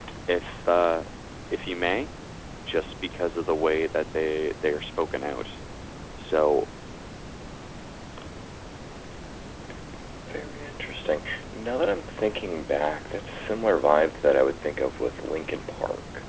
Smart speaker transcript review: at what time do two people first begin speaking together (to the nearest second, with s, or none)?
none